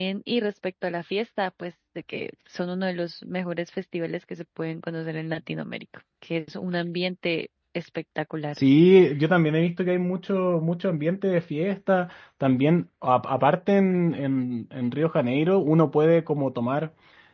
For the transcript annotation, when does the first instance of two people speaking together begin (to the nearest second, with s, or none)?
none